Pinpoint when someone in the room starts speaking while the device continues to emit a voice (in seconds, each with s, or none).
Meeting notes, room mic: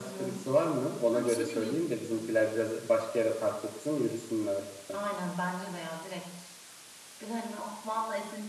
1.0 s